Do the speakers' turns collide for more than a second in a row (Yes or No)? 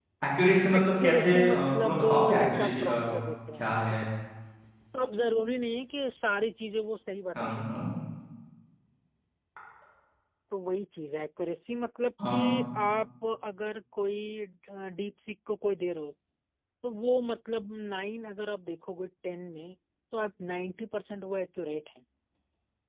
Yes